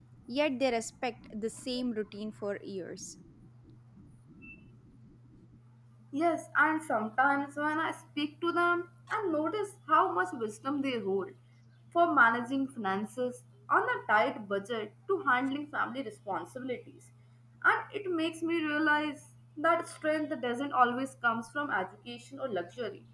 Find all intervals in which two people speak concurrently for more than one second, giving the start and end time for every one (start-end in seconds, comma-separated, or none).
none